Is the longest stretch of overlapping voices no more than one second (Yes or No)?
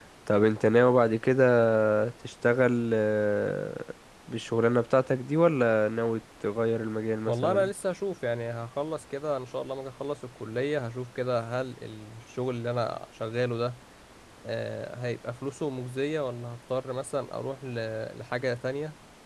Yes